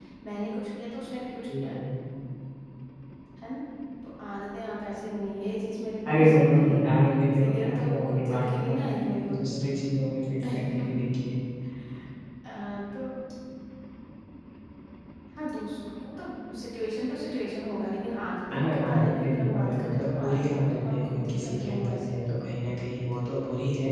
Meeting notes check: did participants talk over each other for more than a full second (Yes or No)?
Yes